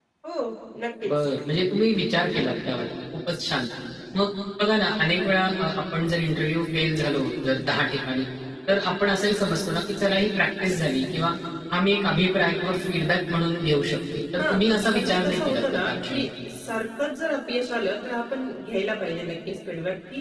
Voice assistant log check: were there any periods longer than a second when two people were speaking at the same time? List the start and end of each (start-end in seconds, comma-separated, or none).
14.4-16.3